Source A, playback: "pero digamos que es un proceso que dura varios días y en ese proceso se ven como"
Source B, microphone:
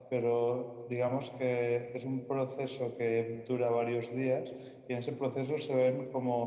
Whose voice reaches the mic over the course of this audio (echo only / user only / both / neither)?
echo only